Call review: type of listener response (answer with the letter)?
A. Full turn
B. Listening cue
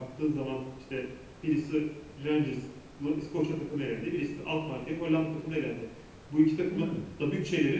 B